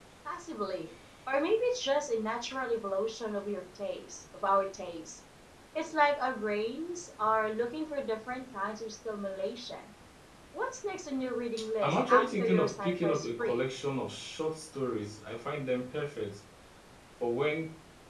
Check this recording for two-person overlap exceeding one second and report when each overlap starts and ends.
11.8-13.6

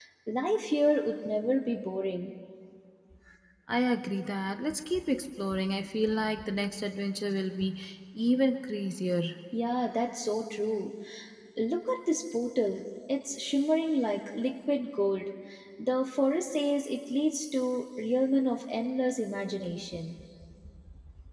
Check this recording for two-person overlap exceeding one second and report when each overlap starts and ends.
none

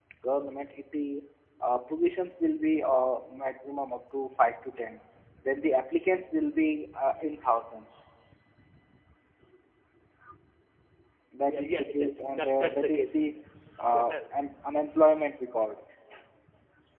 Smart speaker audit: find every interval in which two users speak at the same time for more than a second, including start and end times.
11.5-13.1

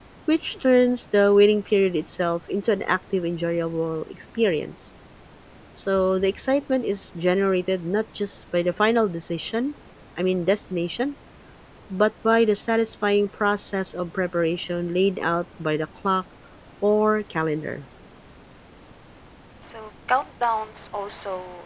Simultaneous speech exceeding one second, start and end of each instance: none

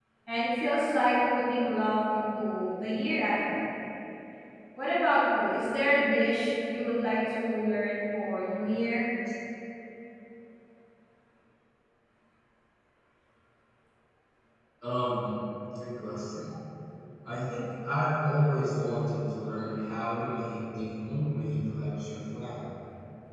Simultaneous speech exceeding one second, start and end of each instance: none

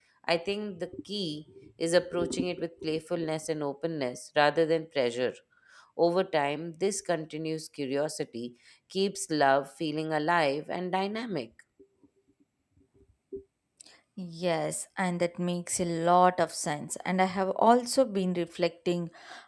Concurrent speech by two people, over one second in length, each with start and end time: none

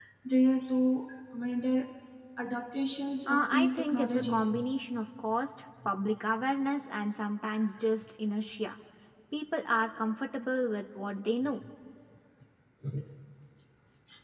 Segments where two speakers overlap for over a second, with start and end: 3.3-4.5

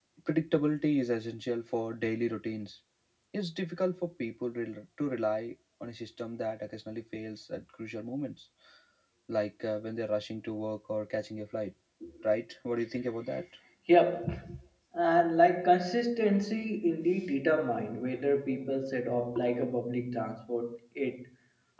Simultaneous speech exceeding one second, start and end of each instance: none

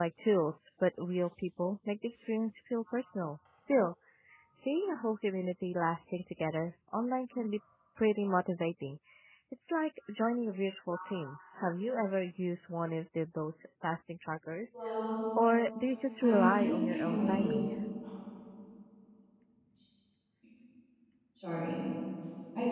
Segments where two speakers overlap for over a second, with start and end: 16.2-17.5

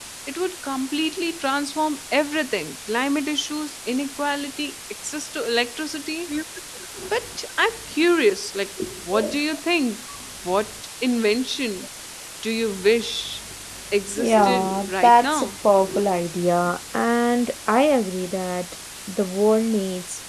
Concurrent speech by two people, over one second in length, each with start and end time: 14.2-15.6

